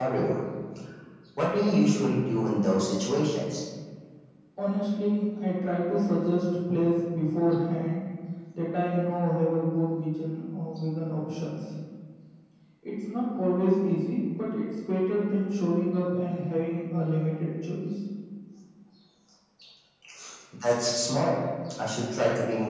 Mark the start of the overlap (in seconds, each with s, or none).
none